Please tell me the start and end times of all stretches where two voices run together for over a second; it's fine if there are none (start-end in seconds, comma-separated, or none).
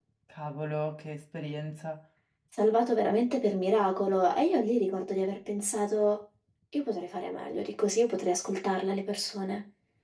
none